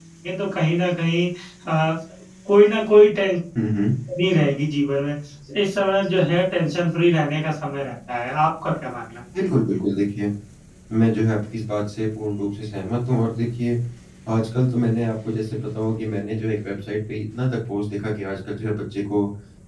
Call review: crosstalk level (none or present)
none